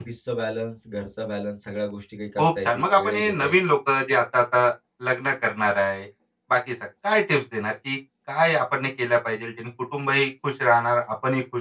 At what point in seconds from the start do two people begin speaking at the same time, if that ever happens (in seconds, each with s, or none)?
2.4 s